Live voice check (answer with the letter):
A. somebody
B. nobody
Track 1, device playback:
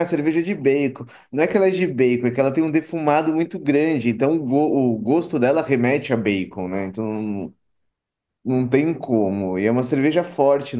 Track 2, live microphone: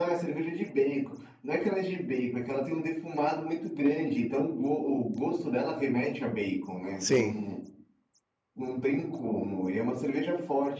A